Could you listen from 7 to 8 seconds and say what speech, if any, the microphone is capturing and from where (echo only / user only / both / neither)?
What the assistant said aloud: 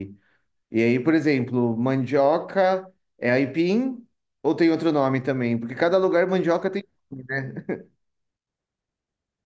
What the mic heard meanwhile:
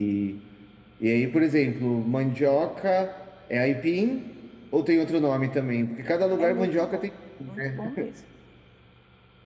both